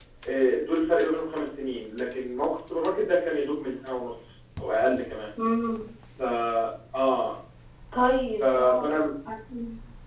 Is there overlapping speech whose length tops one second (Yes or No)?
No